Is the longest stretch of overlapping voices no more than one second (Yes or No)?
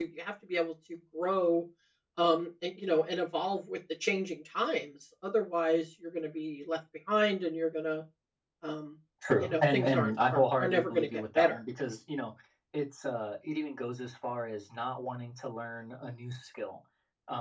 No